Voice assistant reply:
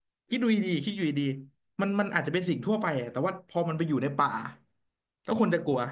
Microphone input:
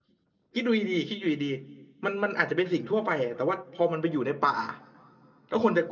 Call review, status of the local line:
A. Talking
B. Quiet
B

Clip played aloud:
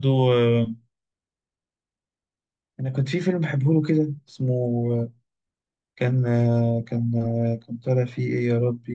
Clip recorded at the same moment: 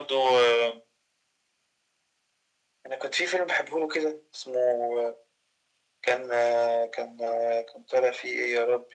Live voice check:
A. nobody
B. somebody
A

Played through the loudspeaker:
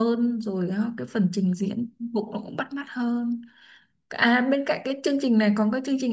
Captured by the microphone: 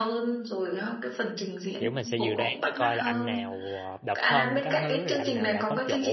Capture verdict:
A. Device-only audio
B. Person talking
B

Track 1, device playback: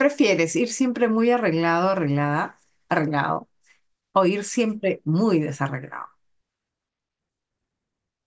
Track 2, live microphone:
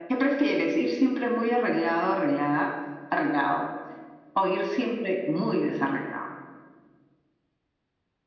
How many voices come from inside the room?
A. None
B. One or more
A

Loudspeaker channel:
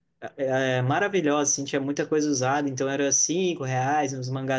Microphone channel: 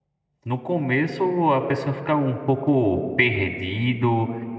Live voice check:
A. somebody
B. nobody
A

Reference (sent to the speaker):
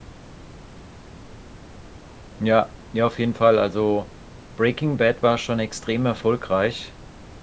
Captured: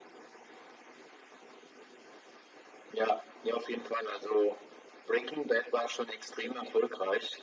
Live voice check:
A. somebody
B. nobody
B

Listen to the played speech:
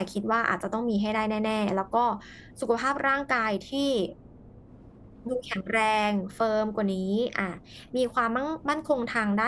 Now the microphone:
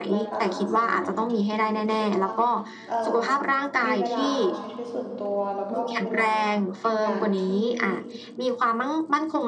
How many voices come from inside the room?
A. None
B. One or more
B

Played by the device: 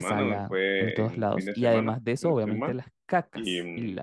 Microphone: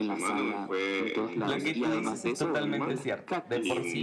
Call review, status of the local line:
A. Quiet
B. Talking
B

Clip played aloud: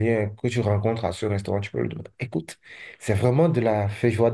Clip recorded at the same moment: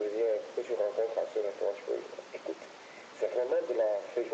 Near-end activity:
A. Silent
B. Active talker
A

